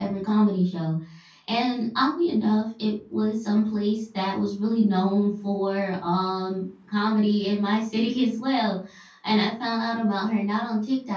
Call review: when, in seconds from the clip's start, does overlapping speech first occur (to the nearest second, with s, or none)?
none